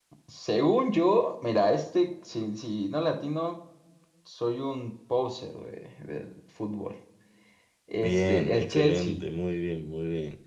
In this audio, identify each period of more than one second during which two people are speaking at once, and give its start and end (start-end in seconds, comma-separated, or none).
8.0-9.2